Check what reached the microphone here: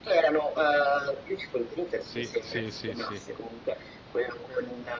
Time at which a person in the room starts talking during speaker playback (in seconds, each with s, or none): 2.0 s